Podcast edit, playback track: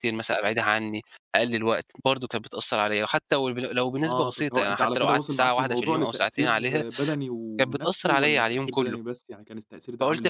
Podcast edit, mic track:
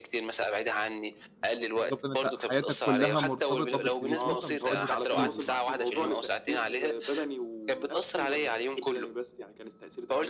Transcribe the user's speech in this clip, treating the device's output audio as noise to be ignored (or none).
بالضبط إن أنت حياتك كلّها مرتبطة بالتليفون فمش قادر تسيبه بقى، ف